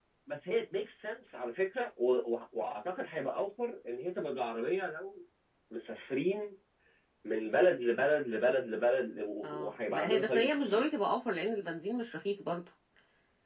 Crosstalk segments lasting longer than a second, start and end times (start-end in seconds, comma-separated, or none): 9.4-10.8